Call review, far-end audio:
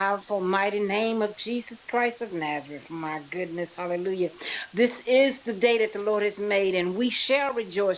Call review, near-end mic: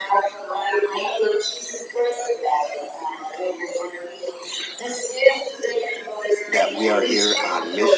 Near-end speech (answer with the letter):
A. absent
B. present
B